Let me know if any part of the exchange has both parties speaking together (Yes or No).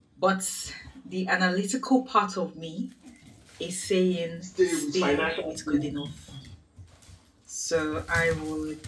Yes